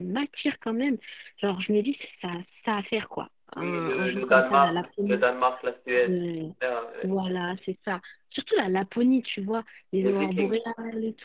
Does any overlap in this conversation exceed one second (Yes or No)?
Yes